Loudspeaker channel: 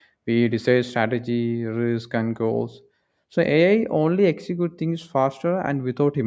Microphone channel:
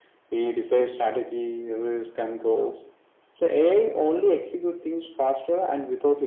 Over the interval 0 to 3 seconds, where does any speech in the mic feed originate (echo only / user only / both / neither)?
echo only